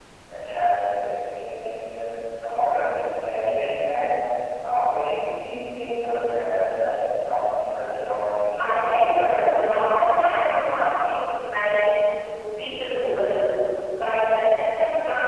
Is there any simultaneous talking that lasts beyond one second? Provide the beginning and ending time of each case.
8.6-10.7

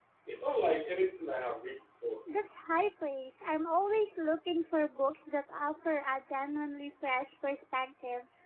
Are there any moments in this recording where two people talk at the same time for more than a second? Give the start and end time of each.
none

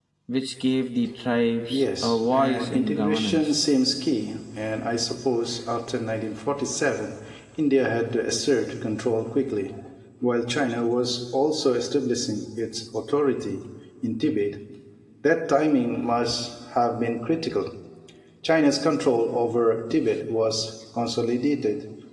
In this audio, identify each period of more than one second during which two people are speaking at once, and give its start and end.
1.7-3.6

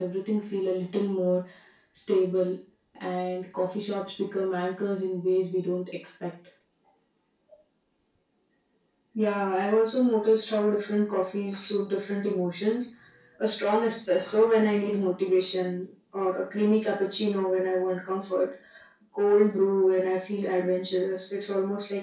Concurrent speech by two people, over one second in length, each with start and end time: none

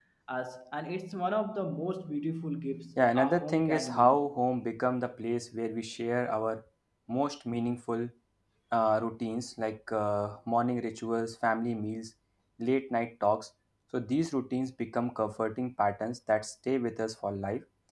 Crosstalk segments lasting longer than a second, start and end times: 3.0-4.2

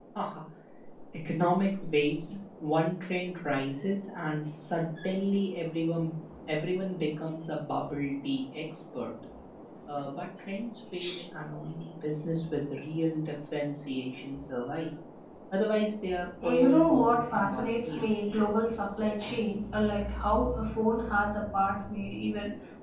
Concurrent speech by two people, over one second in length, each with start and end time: 16.4-18.1

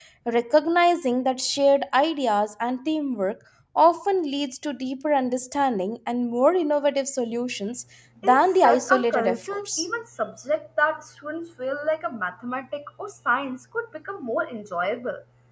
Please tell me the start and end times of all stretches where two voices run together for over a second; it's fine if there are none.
8.2-9.9

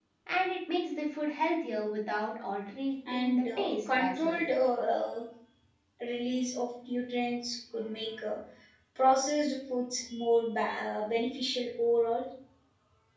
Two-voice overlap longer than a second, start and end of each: 3.1-4.4

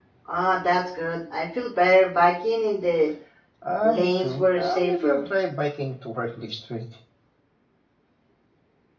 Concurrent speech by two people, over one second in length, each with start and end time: 3.8-5.2

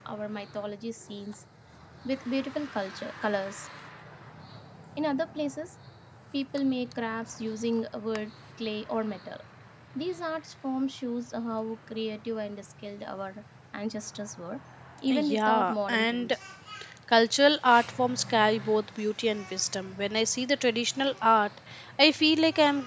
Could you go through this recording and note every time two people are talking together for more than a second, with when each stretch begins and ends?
15.1-16.4

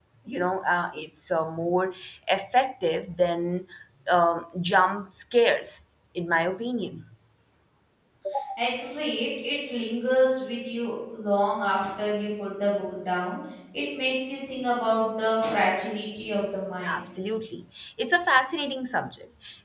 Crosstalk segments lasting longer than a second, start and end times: none

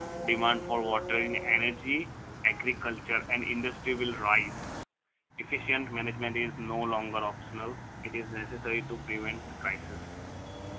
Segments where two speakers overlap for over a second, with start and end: none

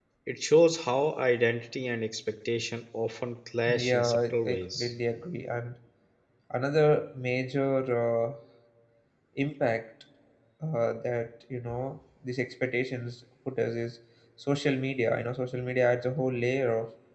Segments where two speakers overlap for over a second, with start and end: 3.7-4.9

